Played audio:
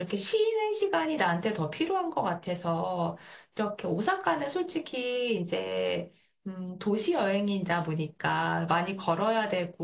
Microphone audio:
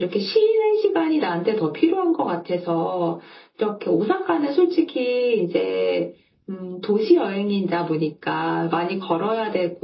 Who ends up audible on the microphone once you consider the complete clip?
echo only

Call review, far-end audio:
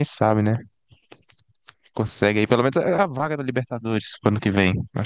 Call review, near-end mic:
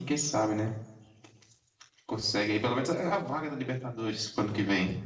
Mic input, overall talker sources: echo only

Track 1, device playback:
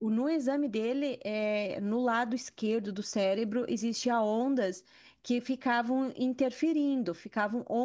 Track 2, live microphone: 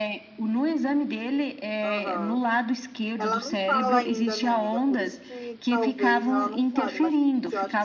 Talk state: both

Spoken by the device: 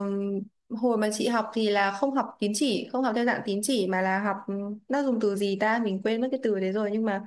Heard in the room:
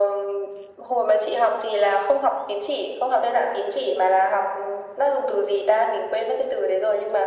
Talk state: echo only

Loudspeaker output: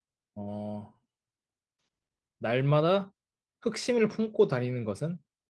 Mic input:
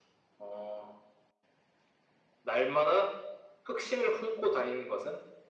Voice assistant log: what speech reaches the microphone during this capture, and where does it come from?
echo only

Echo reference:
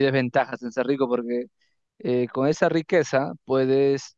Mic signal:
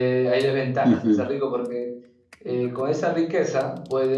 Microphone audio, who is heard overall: both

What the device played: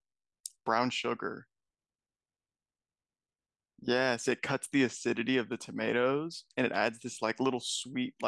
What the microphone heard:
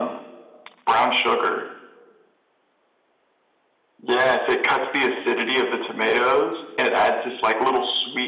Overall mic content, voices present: echo only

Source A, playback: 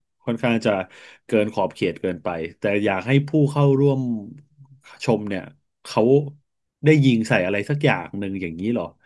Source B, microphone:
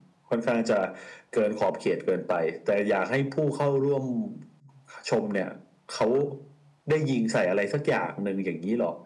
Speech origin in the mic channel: echo only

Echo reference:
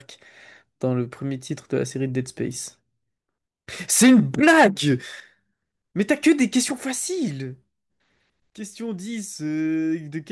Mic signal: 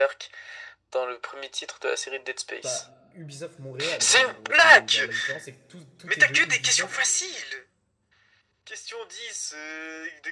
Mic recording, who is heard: both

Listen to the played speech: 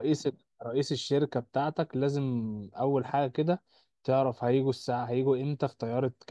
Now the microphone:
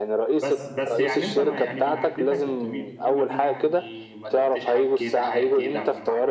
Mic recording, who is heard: both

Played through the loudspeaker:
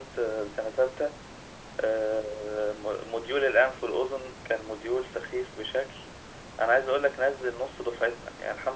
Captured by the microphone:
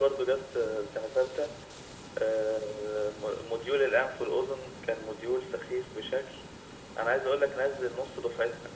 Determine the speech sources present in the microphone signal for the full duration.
echo only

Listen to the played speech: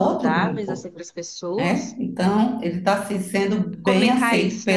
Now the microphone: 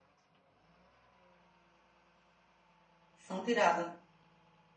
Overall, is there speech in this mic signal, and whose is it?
user only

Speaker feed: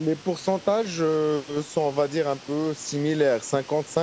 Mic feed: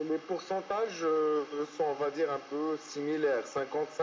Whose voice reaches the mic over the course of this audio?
echo only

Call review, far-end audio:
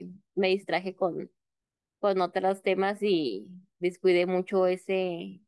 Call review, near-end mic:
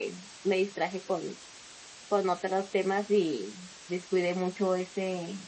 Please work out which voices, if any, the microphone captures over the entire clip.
echo only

